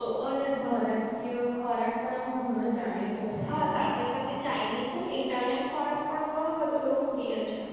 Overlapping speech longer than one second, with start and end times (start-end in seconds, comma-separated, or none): none